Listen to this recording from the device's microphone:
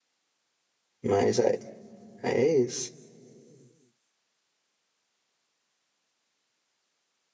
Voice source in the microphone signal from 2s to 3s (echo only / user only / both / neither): user only